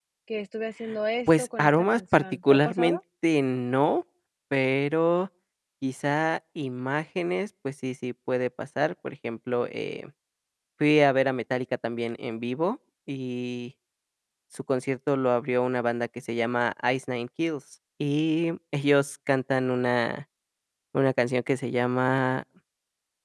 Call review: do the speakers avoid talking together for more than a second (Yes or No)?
No